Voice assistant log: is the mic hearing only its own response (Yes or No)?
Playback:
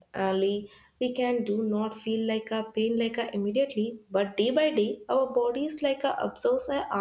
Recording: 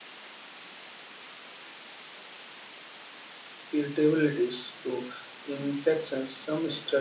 No